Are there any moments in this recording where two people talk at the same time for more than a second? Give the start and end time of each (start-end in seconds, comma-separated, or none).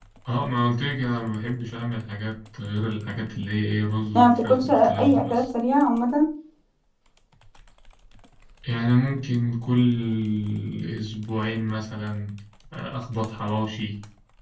4.2-5.4